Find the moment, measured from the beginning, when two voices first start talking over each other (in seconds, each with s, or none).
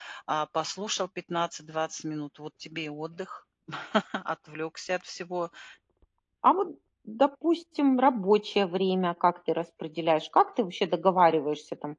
none